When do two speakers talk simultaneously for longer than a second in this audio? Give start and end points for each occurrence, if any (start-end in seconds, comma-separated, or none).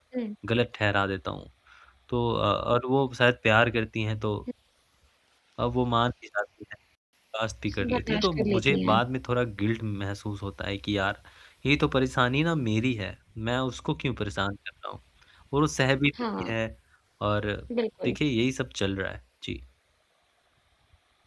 7.8-9.0